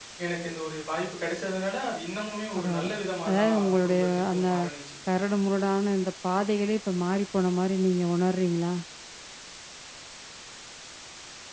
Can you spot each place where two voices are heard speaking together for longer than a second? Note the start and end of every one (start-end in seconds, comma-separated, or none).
3.3-4.5